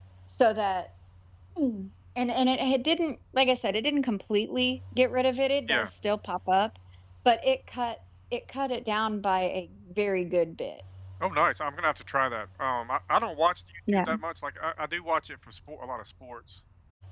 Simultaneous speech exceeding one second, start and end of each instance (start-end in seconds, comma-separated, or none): none